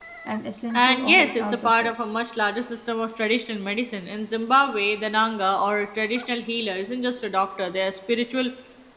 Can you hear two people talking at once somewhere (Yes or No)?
Yes